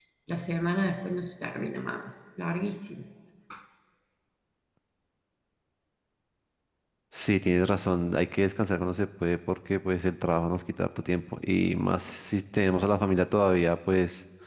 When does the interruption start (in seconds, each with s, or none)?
none